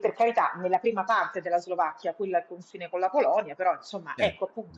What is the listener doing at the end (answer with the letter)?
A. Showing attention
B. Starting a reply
A